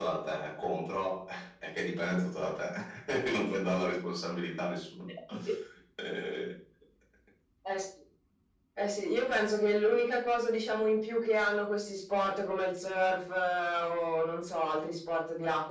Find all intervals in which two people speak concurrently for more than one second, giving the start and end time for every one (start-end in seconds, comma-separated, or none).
none